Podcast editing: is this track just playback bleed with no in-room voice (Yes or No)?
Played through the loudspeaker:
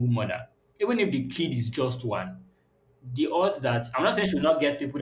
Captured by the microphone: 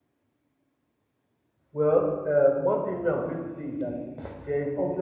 No